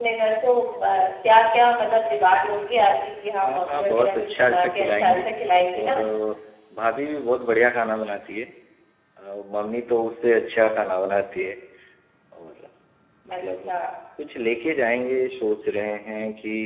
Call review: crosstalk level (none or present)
present